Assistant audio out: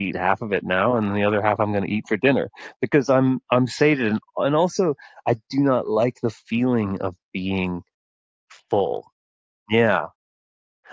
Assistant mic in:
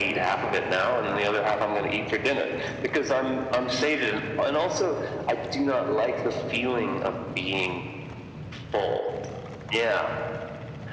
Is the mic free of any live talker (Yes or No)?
Yes